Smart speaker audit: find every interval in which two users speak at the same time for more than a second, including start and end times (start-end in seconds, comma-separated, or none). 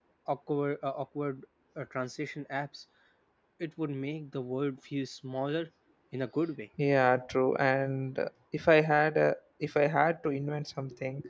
none